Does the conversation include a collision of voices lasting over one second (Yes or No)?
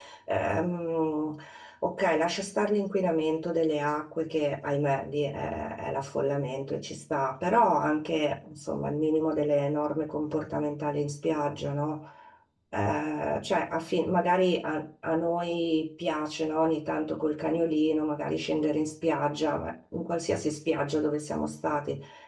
No